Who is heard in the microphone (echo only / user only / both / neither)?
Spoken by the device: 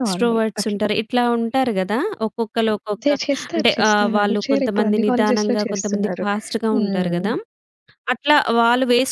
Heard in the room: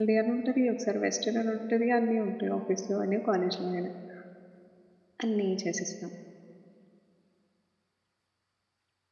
user only